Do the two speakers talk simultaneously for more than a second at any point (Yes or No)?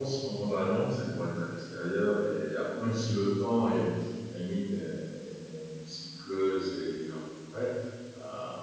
No